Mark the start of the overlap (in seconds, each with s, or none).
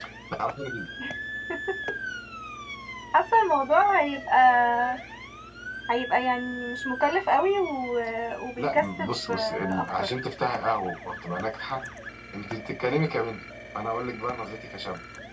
8.6 s